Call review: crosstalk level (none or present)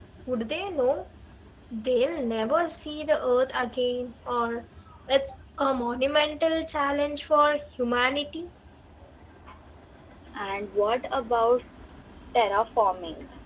none